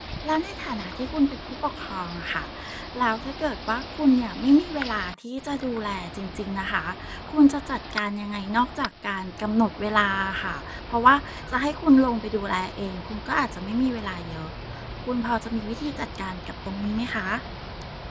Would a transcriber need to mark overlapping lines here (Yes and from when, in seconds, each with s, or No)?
No